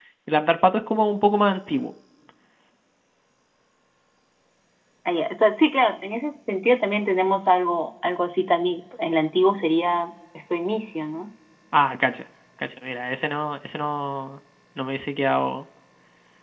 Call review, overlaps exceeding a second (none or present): none